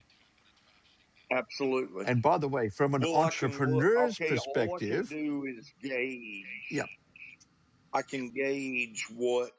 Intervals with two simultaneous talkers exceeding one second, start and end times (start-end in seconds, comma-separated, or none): 3.0-5.1